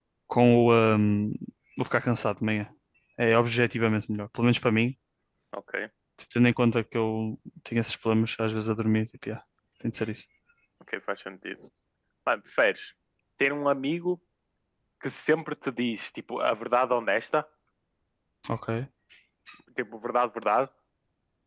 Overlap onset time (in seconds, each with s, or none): none